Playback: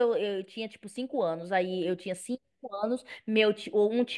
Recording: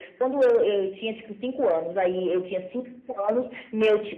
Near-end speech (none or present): none